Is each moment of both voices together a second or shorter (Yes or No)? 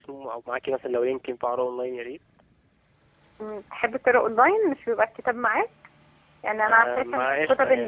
No